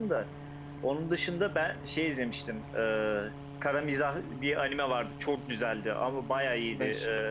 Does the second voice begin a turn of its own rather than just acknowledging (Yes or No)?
No